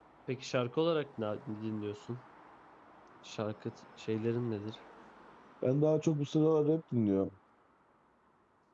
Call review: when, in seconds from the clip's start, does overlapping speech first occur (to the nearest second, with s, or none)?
none